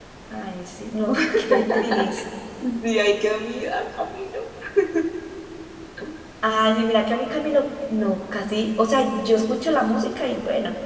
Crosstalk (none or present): none